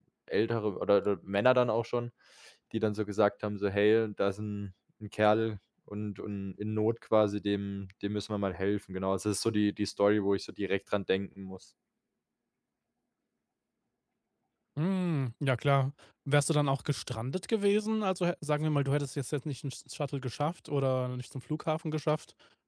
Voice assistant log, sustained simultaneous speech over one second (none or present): none